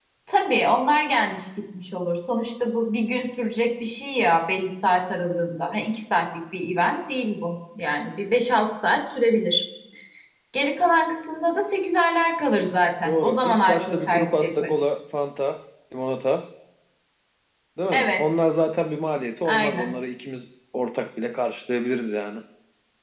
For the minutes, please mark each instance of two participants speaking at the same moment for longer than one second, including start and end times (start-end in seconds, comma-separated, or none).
13.0-15.0